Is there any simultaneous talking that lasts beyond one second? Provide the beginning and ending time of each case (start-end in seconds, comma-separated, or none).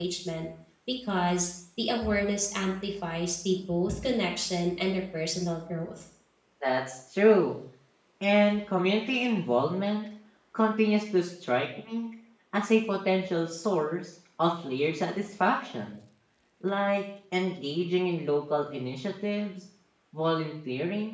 none